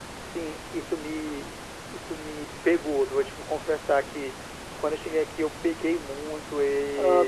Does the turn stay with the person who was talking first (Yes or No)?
No